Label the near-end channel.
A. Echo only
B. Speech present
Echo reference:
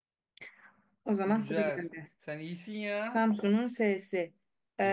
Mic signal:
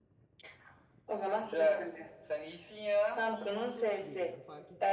B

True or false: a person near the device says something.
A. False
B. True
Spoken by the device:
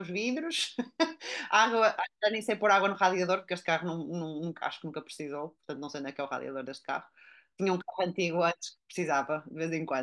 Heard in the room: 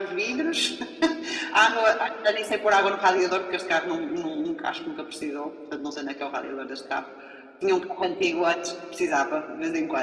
A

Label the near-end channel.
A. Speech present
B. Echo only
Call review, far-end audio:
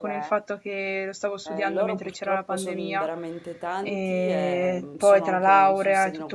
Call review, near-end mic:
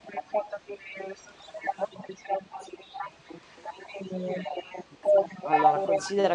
A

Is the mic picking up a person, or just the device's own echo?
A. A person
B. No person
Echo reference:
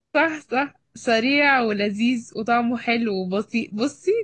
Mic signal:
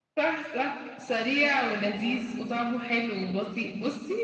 B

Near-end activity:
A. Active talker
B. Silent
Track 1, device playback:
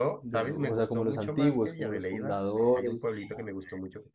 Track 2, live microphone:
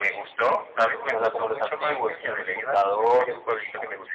B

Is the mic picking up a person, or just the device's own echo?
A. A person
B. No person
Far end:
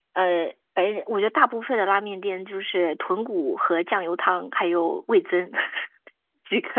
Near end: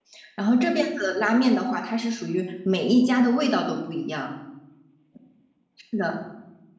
A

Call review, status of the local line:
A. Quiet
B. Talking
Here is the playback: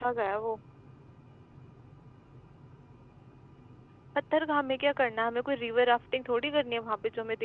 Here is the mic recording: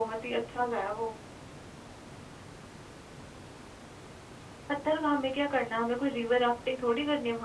A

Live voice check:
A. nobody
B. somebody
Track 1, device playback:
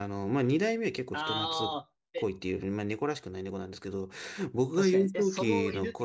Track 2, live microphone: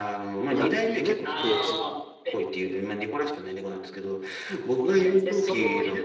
B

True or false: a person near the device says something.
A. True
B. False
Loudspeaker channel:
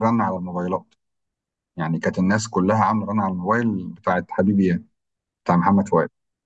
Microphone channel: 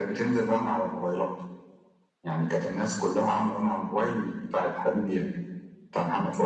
B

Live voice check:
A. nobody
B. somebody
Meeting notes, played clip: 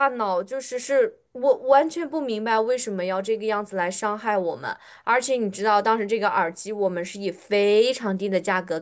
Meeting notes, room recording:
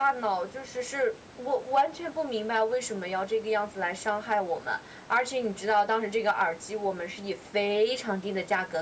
A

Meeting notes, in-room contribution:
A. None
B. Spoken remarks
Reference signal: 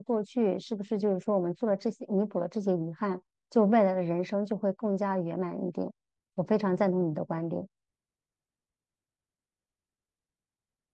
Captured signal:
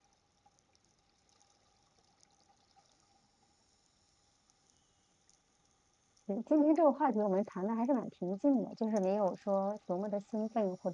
B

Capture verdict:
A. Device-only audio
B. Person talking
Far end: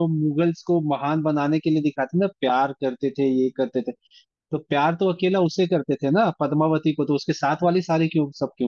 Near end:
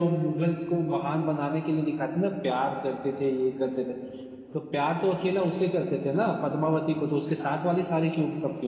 A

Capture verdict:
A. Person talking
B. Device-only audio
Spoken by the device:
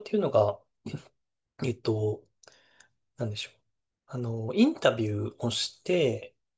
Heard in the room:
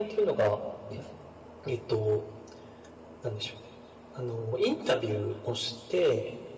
B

